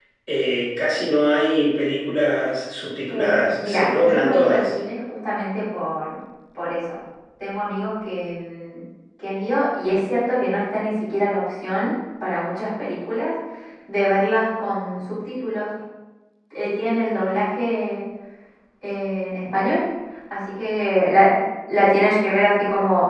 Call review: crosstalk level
present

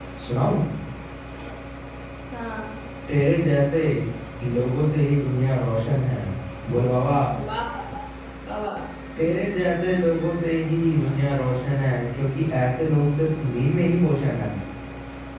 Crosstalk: none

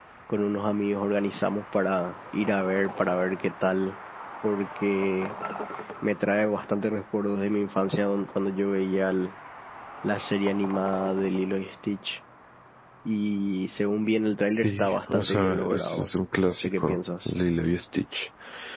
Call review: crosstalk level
present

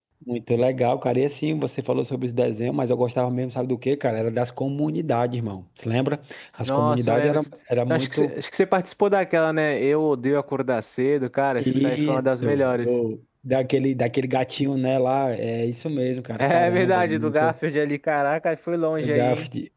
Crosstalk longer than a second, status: present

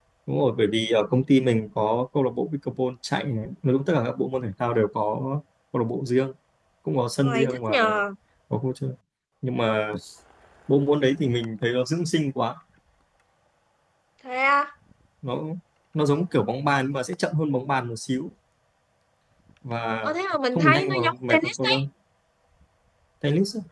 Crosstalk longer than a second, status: present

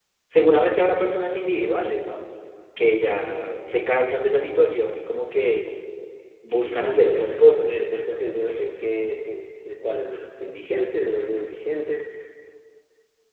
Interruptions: present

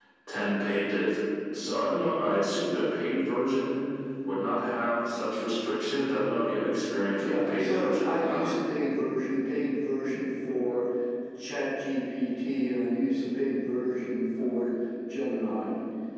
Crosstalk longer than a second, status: present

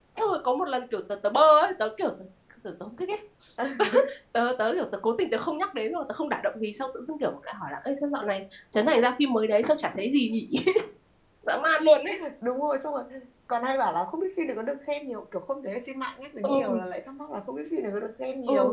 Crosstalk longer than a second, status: none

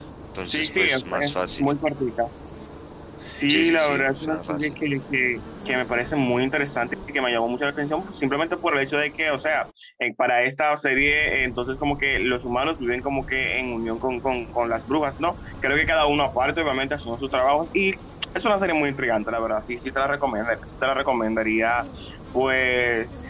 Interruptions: present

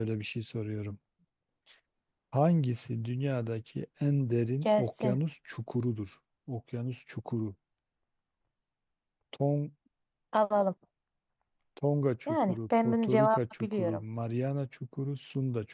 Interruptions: present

